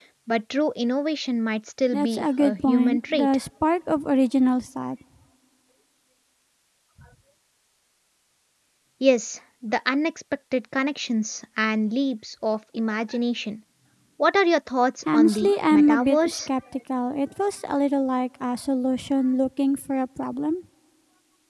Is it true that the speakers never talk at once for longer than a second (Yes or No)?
No